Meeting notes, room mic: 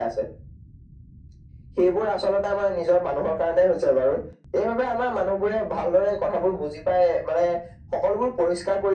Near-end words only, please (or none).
none